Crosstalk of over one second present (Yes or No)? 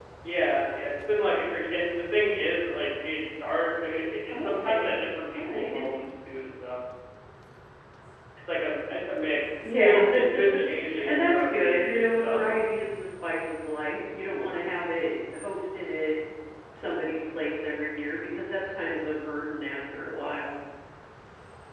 Yes